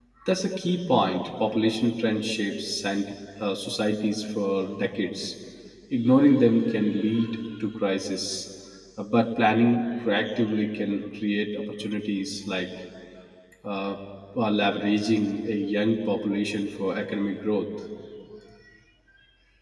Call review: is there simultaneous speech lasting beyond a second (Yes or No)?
No